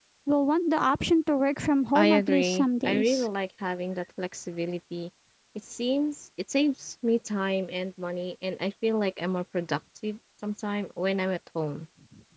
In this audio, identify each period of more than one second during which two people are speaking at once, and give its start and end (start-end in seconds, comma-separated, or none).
2.0-3.3